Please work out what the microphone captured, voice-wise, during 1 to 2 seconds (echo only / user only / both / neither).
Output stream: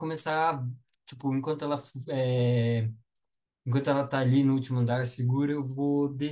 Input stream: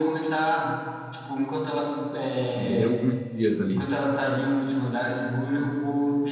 echo only